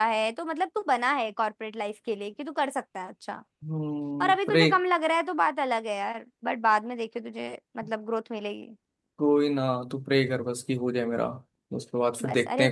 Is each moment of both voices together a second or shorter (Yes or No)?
Yes